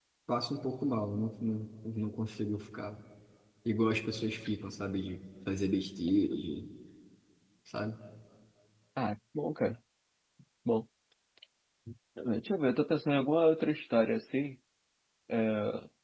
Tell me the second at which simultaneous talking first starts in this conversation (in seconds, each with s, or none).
none